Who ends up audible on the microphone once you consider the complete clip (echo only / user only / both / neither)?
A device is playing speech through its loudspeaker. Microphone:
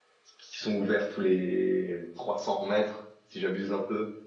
user only